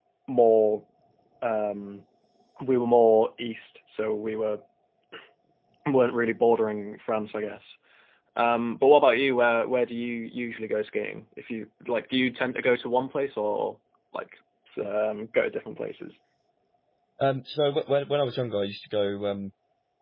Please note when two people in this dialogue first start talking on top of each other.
none

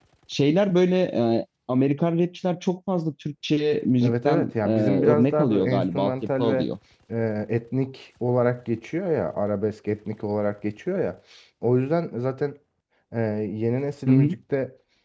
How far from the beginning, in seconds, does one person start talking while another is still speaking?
4.0 s

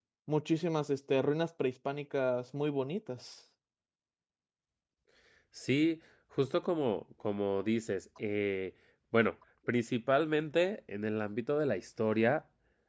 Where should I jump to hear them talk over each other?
none

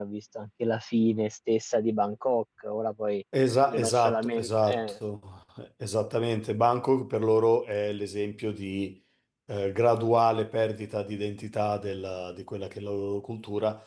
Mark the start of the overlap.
3.7 s

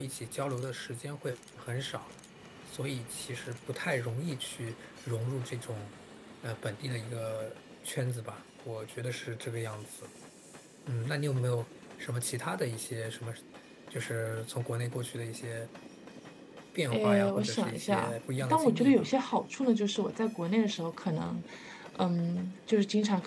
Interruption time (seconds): 16.9 s

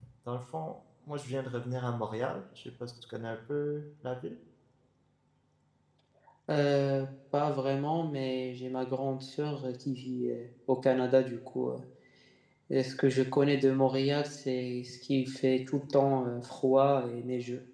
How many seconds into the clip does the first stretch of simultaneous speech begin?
none

